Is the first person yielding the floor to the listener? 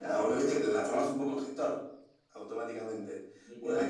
No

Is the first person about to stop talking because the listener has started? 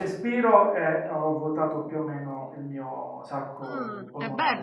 Yes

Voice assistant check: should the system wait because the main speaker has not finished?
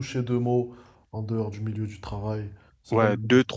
No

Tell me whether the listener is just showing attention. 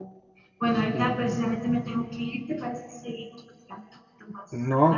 No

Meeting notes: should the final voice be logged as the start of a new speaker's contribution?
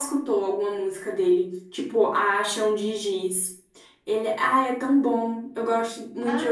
Yes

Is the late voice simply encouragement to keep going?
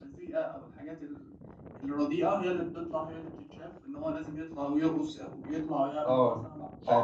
No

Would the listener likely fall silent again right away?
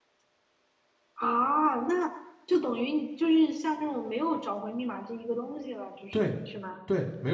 No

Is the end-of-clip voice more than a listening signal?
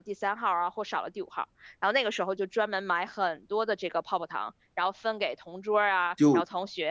No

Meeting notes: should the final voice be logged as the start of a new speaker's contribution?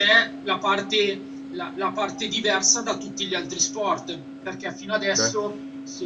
No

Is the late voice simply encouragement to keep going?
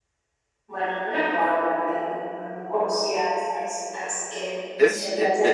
No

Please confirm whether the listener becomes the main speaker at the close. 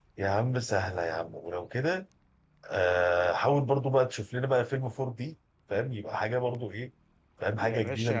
Yes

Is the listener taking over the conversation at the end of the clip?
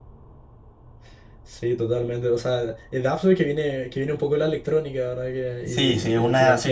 Yes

